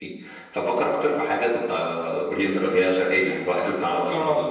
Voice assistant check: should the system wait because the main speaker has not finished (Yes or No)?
No